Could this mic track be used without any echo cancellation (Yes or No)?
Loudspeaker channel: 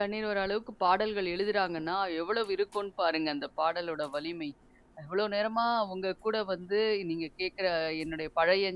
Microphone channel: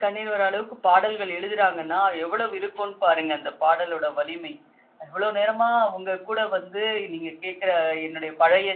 No